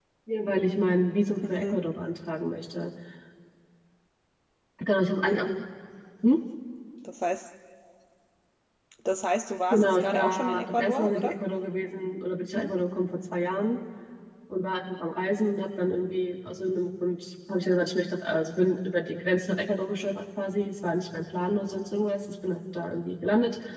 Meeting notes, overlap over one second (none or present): present